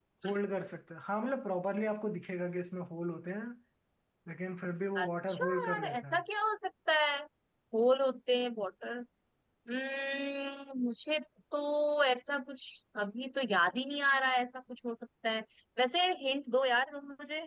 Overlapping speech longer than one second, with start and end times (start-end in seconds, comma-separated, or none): 5.0-6.2